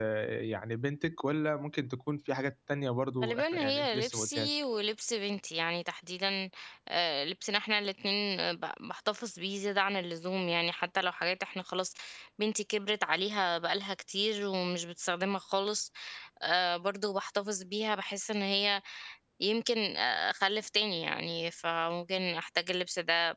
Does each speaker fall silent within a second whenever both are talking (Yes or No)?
No